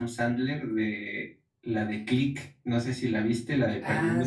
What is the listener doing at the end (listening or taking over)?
taking over